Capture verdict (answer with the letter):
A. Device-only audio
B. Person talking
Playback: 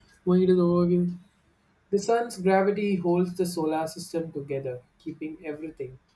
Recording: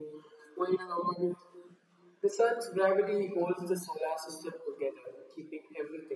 A